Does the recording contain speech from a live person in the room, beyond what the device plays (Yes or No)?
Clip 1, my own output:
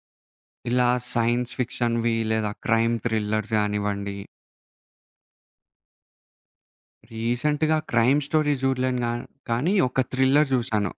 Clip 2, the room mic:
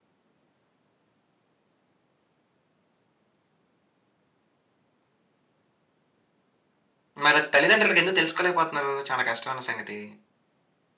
Yes